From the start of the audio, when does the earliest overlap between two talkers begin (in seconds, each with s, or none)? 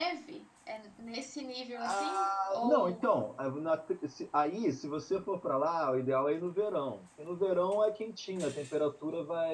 1.7 s